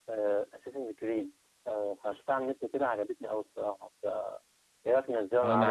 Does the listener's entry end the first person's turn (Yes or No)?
Yes